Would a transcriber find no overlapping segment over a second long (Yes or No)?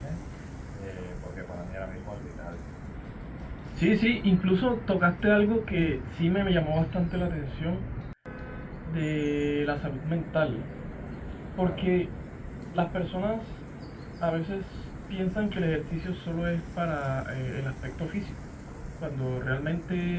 Yes